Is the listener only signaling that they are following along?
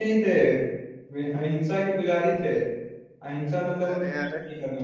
Yes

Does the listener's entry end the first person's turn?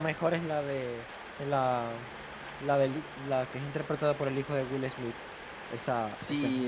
Yes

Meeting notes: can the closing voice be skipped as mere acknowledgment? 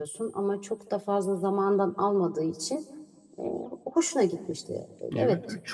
No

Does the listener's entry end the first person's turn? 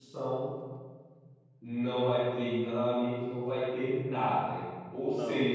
No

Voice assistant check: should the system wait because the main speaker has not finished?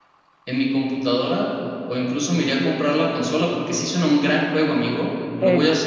No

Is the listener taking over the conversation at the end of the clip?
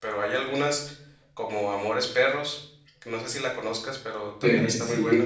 Yes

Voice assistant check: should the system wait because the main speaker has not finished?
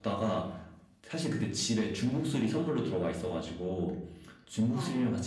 Yes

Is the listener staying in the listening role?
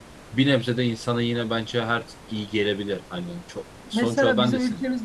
No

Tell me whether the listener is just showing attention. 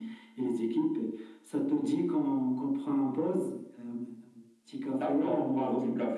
No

